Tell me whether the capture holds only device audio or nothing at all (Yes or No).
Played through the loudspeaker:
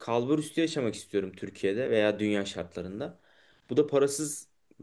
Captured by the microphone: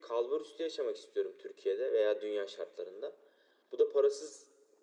Yes